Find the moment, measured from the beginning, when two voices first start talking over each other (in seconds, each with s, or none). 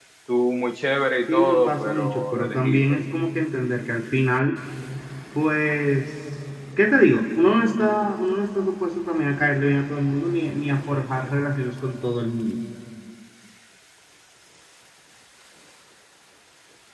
1.3 s